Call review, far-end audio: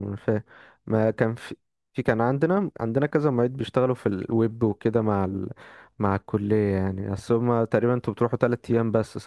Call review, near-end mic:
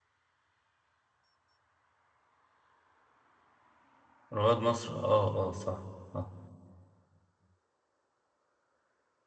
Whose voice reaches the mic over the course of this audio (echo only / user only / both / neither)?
user only